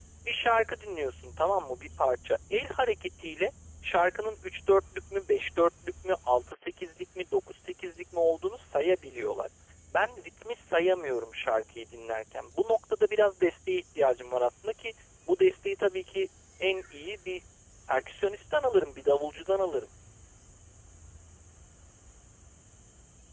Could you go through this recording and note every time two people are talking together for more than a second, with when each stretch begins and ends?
none

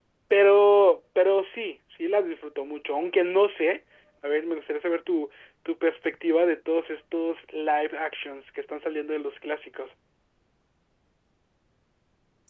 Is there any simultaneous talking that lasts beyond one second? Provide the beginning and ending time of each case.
none

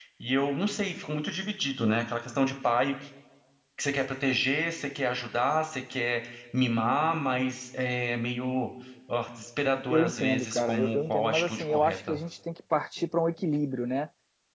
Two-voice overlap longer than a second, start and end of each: 9.9-12.2

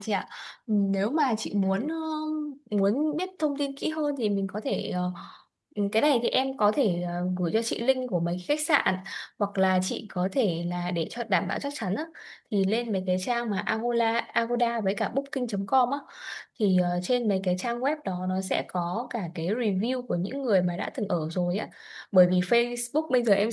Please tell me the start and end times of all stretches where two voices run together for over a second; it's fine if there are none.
none

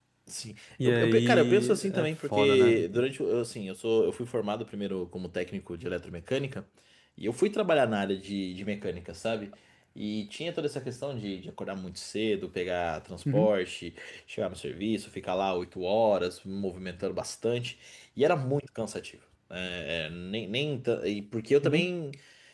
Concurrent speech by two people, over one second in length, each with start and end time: 0.8-2.8

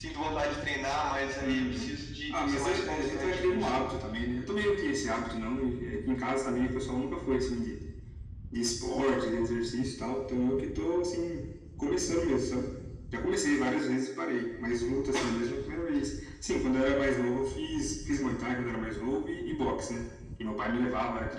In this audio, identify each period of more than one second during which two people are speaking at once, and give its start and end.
2.3-3.7

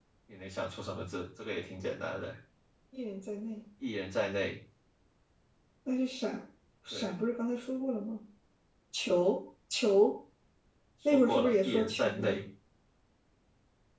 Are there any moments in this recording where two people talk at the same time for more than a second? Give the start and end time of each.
11.1-12.4

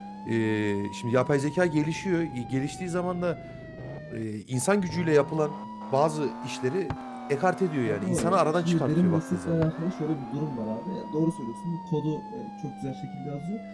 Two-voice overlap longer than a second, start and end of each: 7.8-9.6

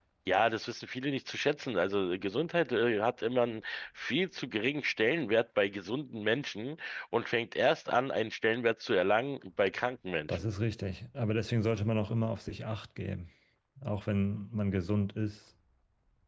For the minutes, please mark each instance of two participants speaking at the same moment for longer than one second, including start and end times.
none

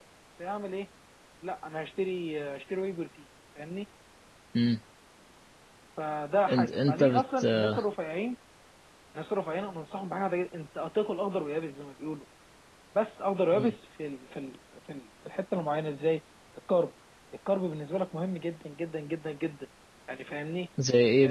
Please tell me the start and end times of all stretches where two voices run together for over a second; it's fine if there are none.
6.5-7.8

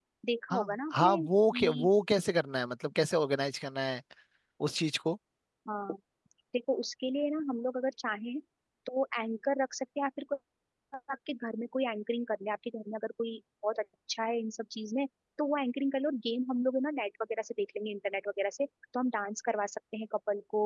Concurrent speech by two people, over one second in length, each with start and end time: 0.5-1.9

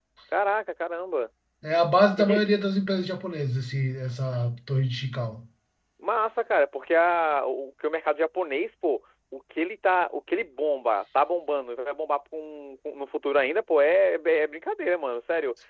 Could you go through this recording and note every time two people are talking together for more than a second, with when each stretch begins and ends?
none

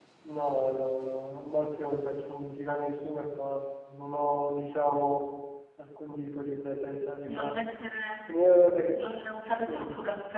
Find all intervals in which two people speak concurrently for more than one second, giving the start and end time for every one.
none

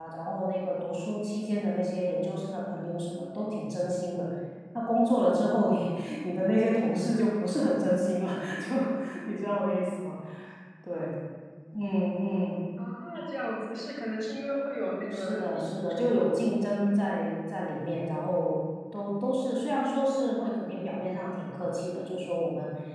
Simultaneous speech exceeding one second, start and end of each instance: 15.0-16.6

